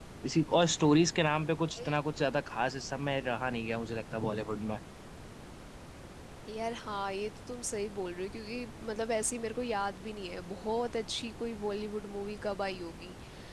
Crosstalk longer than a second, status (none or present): none